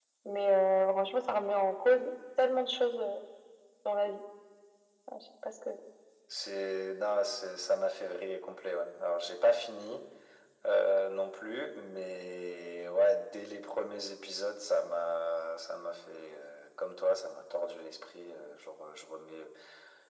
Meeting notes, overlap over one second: none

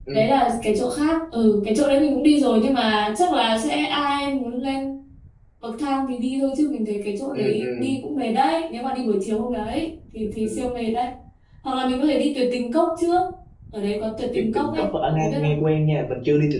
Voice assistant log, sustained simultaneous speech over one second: present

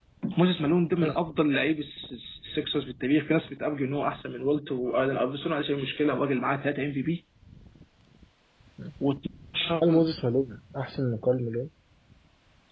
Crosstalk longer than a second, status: none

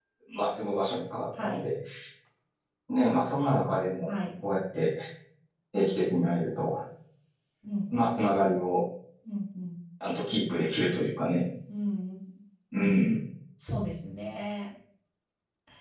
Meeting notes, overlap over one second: none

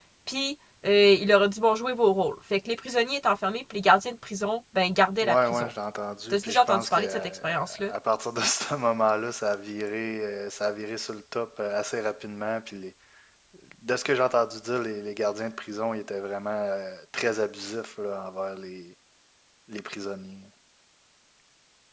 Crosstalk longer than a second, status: present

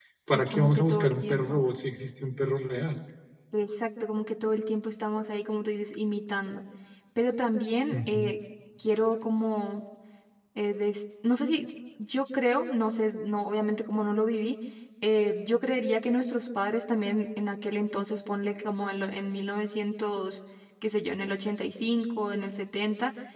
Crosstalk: present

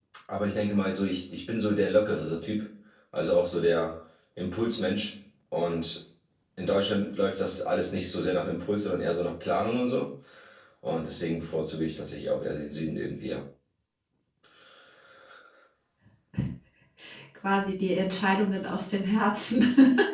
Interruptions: none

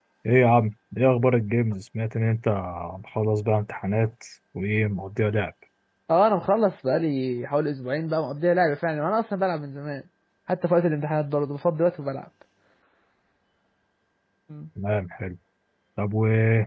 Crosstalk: none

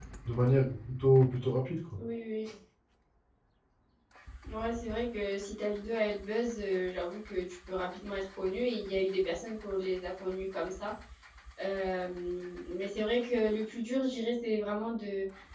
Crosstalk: none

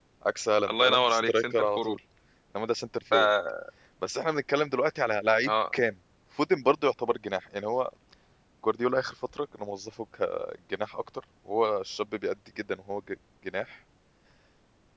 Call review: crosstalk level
present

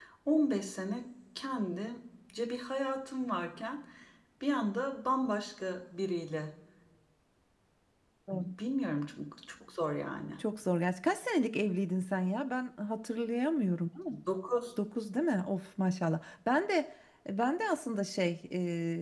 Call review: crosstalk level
none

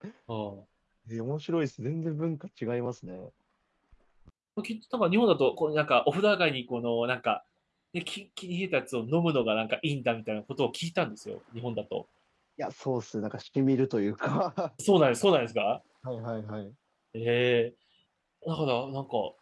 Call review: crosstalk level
none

